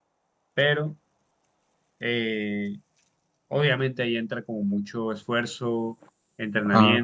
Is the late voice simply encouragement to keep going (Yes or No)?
Yes